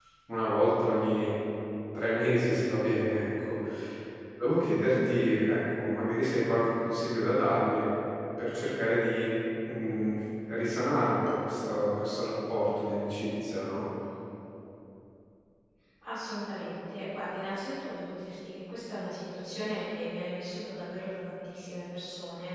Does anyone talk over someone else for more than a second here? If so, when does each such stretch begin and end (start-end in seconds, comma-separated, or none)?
none